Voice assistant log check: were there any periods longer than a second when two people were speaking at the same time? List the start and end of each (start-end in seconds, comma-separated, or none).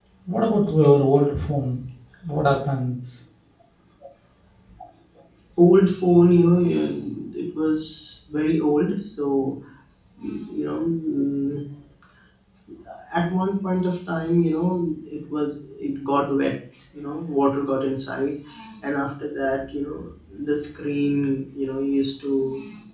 none